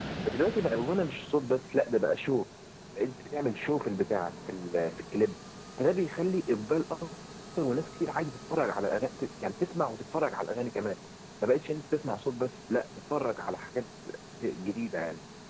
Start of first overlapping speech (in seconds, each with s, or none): none